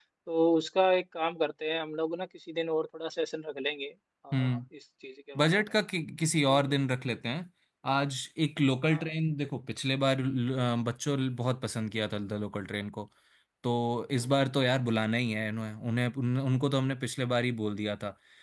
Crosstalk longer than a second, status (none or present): none